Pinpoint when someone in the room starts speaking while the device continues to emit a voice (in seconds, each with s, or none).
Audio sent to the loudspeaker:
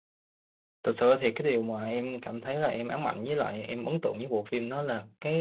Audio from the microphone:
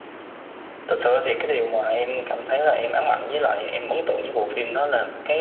none